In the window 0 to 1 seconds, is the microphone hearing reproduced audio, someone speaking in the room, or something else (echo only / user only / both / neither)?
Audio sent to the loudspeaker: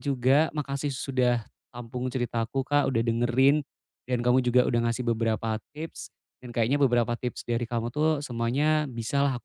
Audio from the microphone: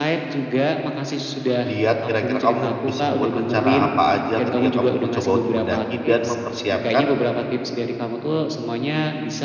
echo only